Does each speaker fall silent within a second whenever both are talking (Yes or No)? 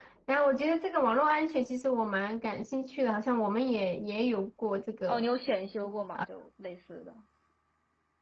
Yes